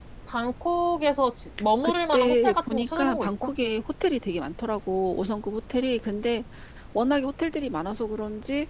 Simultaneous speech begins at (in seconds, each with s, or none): 1.8 s